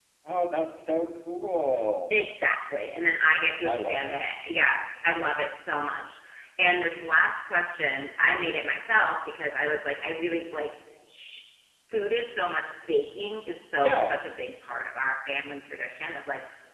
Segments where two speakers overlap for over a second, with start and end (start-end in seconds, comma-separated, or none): none